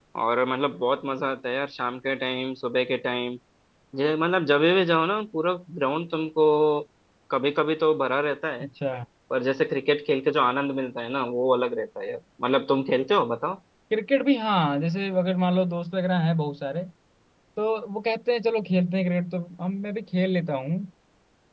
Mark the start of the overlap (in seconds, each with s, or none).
none